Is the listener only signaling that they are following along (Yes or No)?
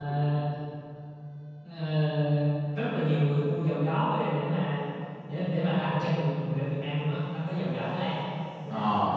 Yes